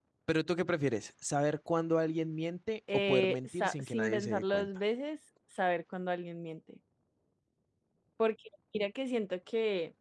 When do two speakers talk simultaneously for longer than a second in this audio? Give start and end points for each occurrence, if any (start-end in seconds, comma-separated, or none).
2.9-4.7